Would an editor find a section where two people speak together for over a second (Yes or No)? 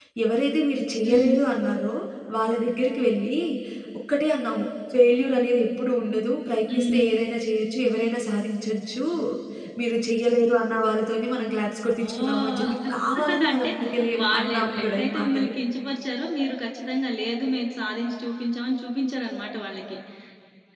Yes